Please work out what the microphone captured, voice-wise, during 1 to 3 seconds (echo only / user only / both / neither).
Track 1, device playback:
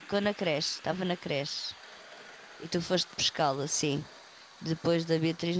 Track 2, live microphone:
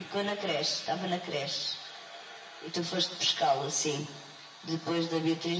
echo only